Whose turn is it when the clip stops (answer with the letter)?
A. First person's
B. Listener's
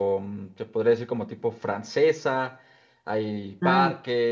A